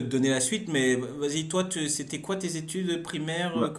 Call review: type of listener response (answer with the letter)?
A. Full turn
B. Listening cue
A